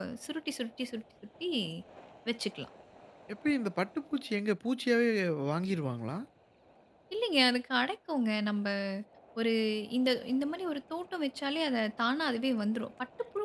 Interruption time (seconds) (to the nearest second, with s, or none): none